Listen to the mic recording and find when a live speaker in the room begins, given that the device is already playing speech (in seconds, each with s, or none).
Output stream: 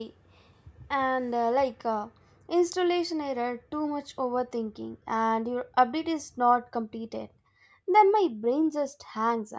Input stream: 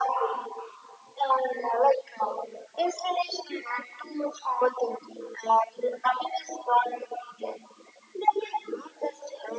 none